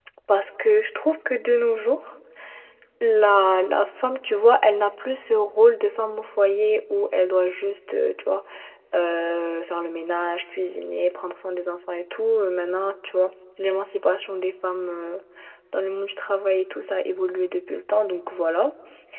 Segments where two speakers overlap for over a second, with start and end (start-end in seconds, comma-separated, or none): none